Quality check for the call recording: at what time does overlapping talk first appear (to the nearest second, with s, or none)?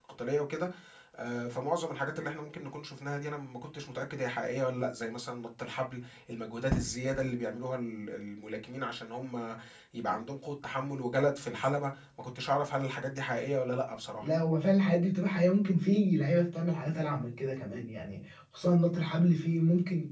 none